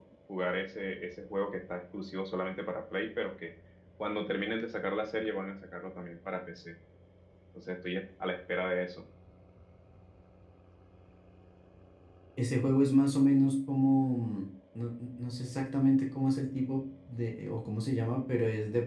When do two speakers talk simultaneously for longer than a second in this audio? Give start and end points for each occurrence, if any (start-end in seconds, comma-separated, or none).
none